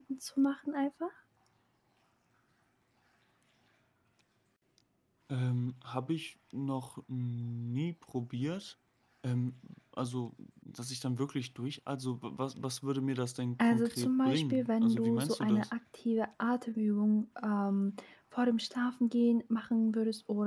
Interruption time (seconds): 13.6 s

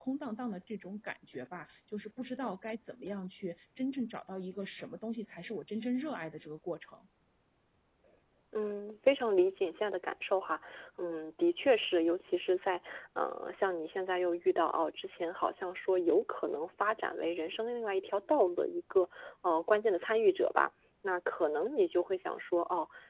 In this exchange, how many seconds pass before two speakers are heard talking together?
none

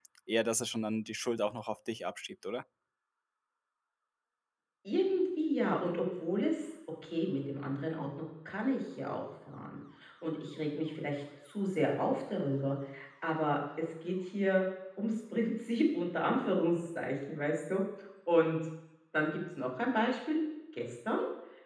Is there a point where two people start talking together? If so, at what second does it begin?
none

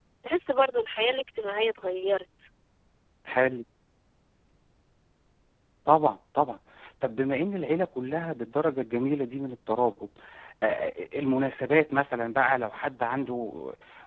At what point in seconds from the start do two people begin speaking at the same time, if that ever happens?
none

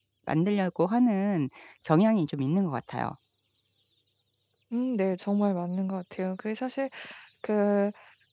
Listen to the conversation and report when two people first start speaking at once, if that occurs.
none

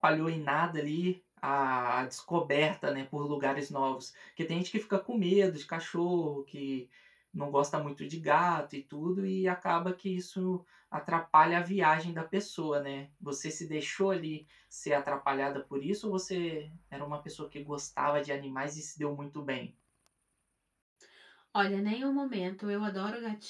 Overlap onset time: none

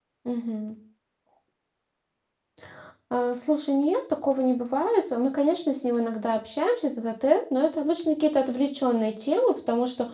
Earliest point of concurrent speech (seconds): none

